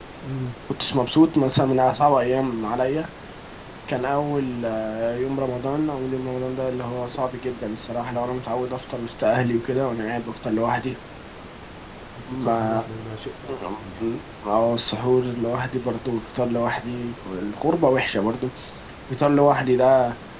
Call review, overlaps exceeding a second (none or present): none